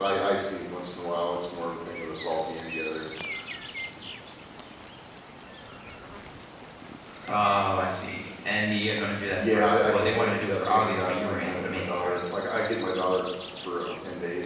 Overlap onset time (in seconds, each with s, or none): 9.4 s